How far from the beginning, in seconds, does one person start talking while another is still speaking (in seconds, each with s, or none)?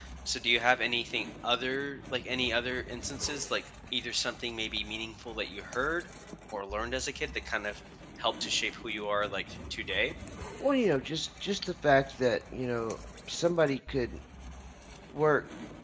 none